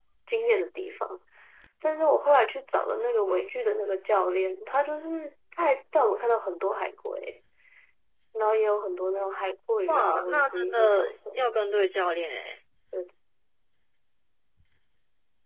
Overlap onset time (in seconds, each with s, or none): 9.9 s